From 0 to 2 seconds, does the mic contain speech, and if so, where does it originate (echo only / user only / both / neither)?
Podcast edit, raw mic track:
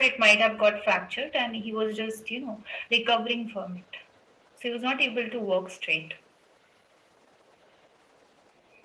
echo only